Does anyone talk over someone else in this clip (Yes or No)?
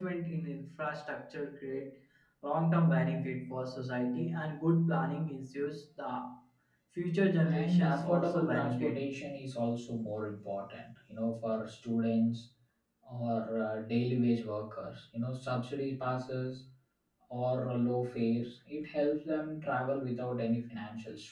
Yes